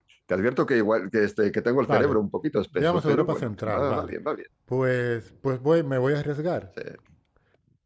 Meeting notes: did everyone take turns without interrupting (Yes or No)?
No